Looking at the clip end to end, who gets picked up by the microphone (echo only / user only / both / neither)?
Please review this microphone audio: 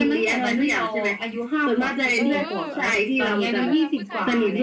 both